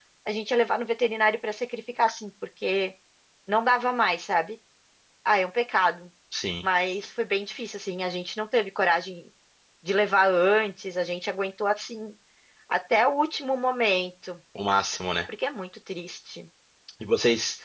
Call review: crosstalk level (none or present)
none